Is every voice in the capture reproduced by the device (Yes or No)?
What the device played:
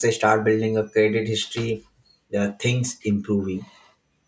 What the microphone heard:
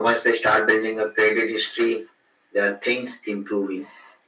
Yes